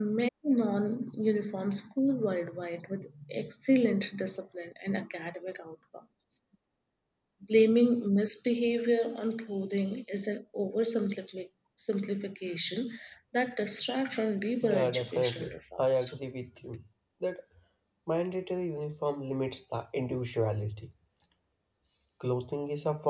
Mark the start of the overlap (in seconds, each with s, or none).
14.6 s